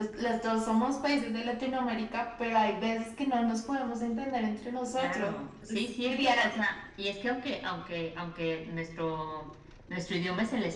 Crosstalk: present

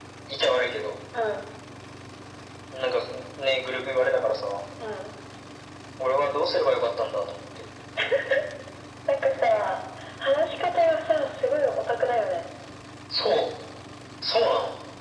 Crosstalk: none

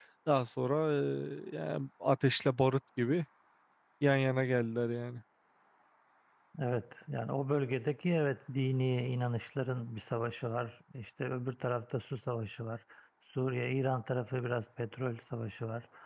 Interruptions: none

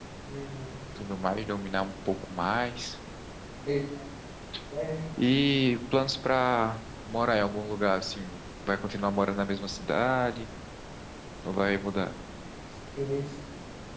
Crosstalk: none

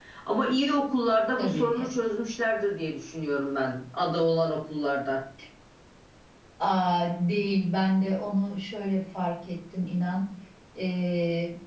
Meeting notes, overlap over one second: none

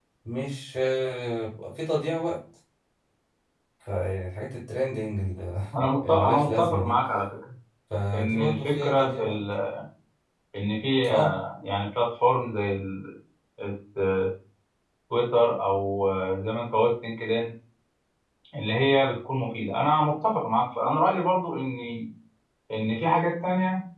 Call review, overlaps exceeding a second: present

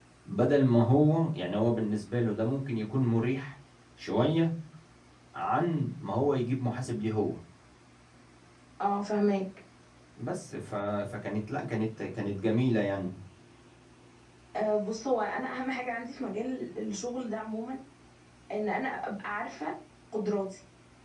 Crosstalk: none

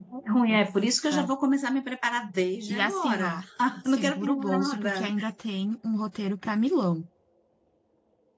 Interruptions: present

